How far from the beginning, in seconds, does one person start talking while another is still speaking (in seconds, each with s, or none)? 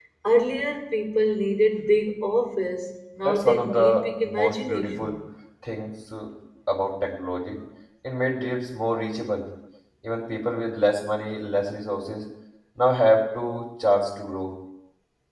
3.2 s